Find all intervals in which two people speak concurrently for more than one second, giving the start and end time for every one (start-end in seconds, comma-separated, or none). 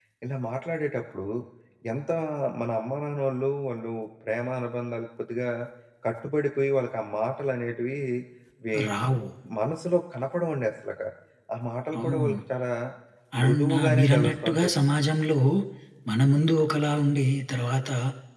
13.4-14.7